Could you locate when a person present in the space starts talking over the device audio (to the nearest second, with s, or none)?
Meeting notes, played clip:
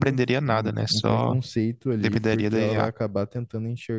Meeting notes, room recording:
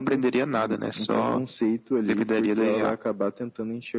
none